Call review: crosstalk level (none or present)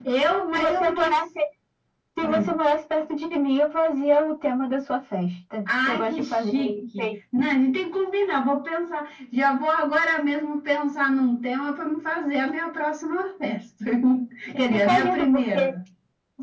present